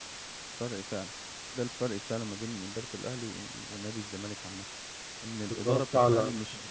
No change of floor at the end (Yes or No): Yes